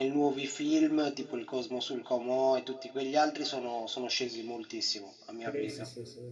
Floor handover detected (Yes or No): Yes